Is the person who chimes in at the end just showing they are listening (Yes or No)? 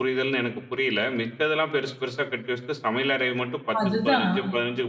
Yes